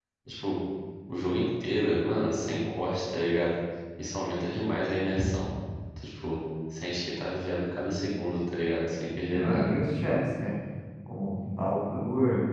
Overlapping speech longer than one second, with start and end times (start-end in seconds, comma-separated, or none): none